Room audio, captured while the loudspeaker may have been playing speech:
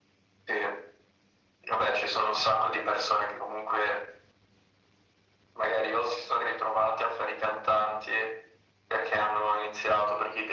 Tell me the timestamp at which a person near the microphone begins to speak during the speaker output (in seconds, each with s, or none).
none